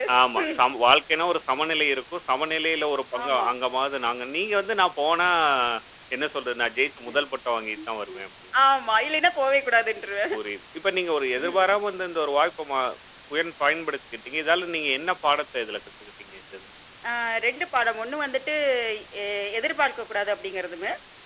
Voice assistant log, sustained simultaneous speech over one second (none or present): none